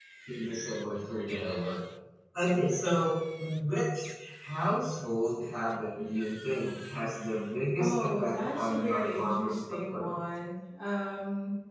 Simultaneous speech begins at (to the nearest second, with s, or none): 8 s